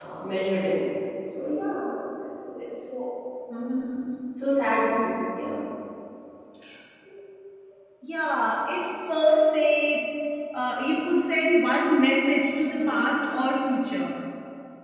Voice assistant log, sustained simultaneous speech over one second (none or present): none